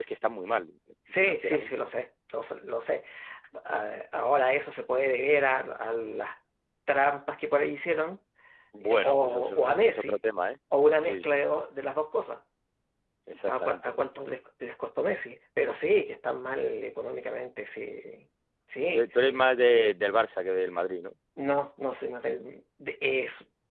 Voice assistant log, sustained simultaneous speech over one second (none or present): present